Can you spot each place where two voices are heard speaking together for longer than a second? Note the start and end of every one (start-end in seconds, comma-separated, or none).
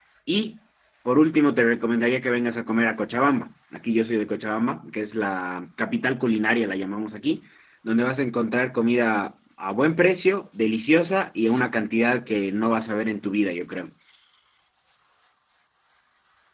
none